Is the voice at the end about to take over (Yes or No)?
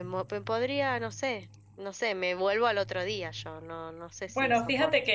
Yes